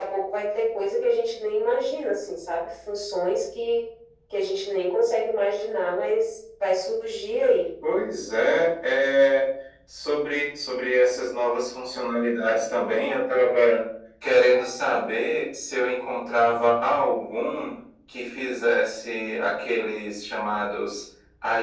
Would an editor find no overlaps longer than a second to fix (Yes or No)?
Yes